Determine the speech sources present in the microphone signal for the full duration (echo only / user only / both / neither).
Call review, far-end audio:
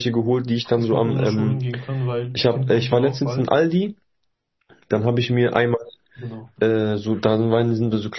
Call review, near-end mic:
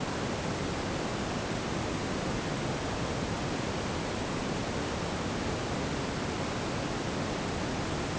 neither